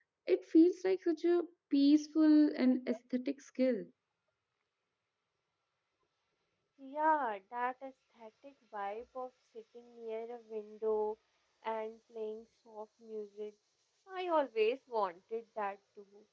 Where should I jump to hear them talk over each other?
none

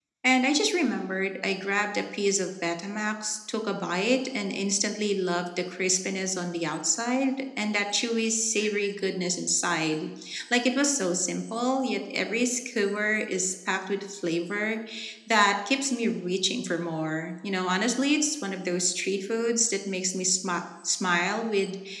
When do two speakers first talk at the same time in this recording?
none

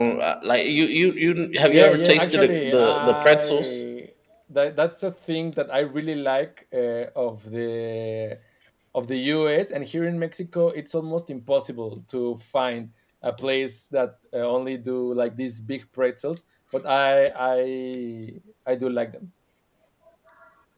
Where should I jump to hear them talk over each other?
1.7 s

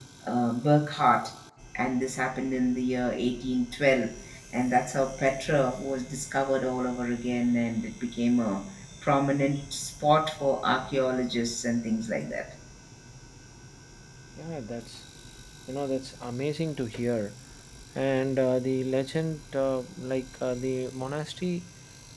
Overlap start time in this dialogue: none

